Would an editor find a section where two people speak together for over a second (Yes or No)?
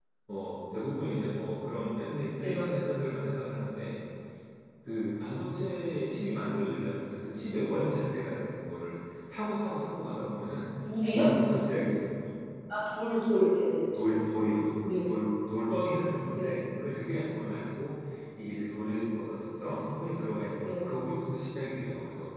No